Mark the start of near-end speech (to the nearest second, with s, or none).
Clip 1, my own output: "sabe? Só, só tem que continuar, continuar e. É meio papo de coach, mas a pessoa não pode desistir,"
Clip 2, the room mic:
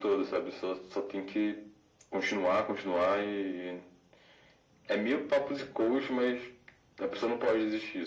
none